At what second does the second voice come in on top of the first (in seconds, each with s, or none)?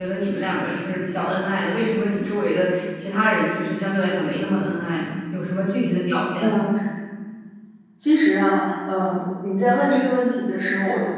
none